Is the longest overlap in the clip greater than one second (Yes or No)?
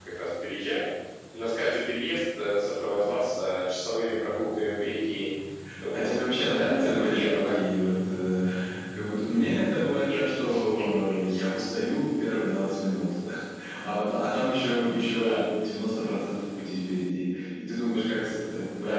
Yes